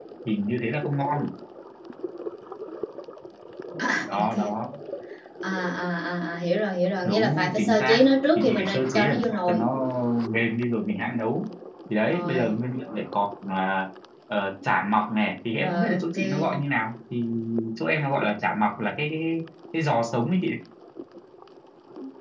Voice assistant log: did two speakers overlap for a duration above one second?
Yes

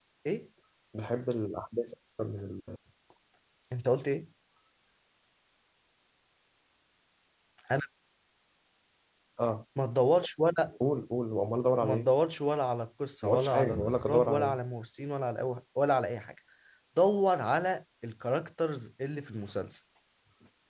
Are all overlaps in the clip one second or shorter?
No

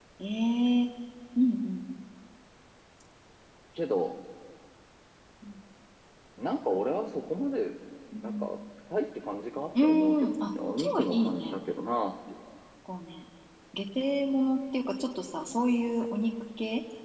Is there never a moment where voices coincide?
No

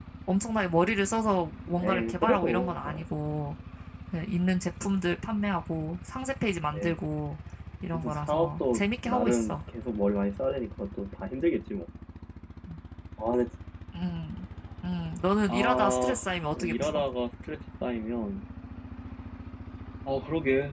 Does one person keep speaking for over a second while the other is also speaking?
Yes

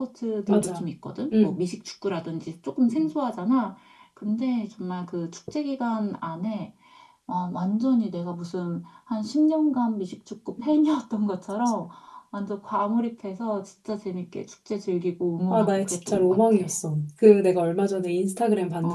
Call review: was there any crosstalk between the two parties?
Yes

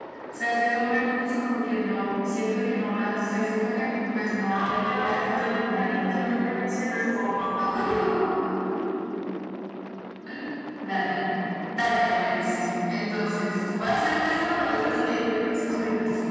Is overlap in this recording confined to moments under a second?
No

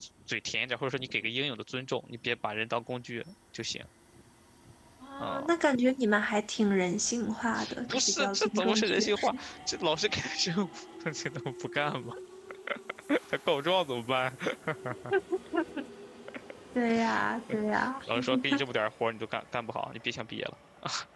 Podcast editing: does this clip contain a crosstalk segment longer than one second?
Yes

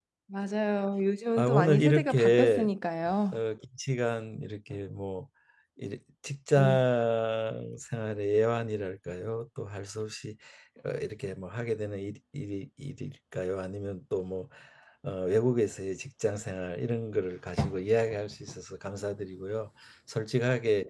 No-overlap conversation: No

